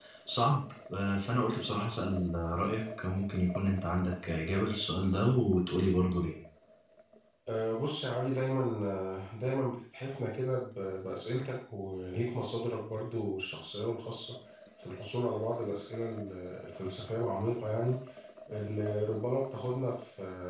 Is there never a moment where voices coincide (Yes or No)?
Yes